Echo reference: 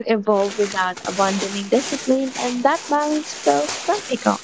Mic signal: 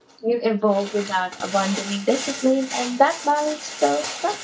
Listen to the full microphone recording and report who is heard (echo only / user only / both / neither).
echo only